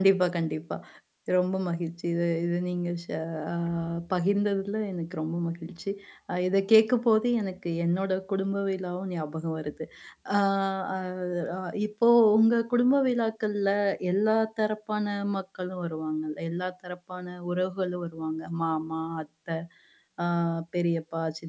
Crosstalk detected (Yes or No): No